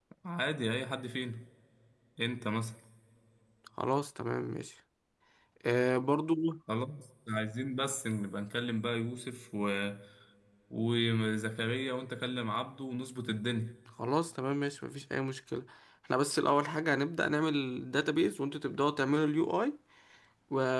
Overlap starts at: none

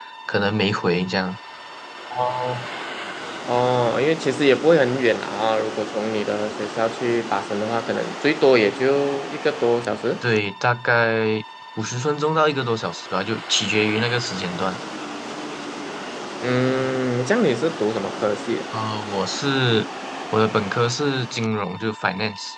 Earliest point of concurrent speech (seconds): none

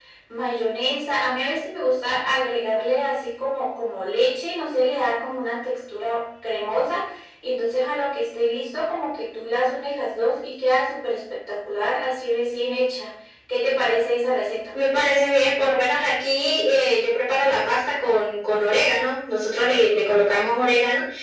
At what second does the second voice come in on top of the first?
none

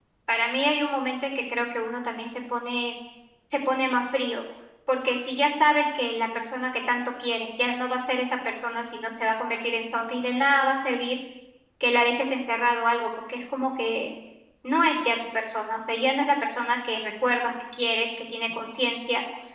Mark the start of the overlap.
none

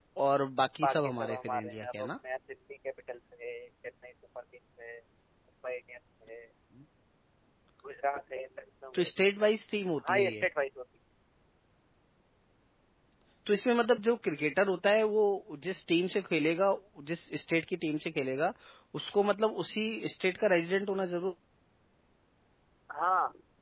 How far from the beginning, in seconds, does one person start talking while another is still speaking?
0.8 s

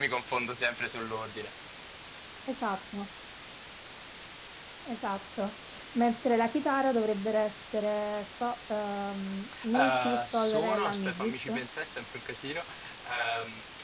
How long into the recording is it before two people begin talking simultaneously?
9.5 s

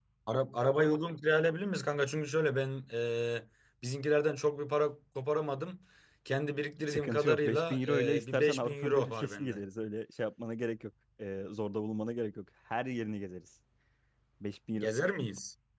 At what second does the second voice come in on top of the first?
6.9 s

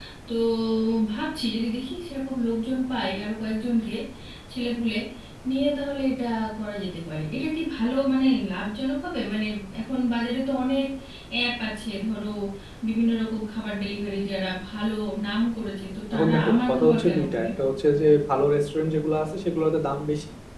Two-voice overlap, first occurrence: 16.1 s

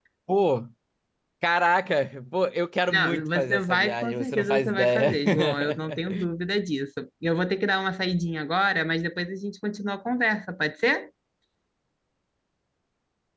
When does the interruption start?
2.9 s

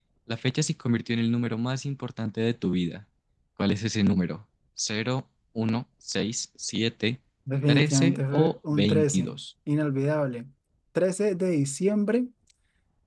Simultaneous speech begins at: 7.7 s

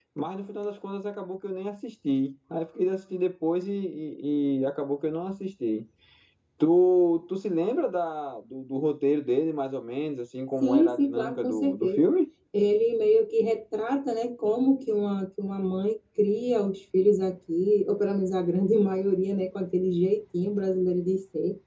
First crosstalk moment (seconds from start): 10.6 s

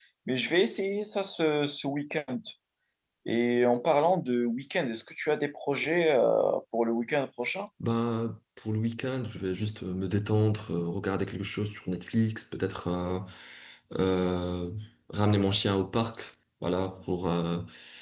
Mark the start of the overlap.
none

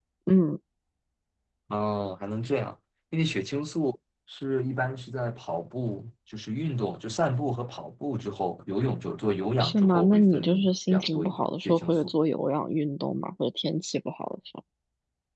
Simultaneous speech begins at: 9.6 s

